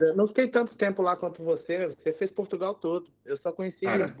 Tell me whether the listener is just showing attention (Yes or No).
Yes